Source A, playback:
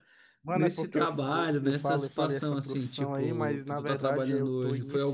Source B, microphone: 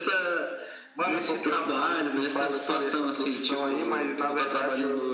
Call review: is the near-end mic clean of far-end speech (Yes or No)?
No